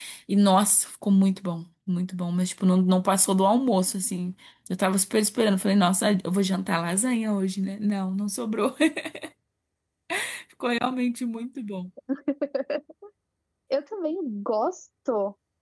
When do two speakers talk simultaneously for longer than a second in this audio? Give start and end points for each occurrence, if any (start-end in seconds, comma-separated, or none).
none